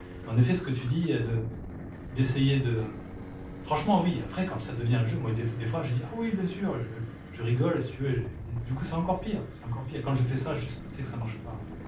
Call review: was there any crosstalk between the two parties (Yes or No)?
No